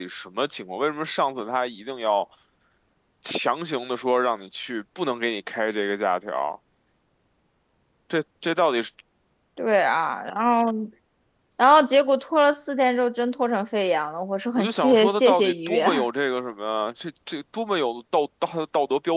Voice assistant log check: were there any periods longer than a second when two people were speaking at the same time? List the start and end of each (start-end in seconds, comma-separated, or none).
14.6-16.0